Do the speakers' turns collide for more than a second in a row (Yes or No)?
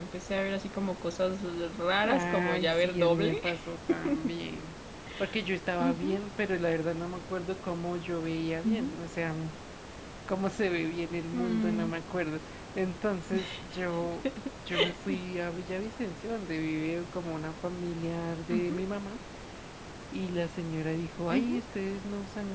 Yes